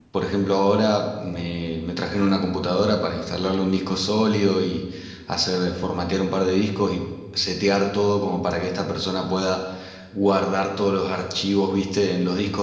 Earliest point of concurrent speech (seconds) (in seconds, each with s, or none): none